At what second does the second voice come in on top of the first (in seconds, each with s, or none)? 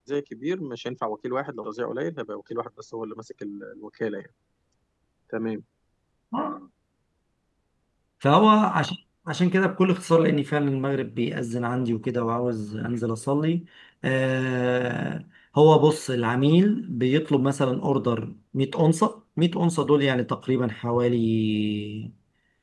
none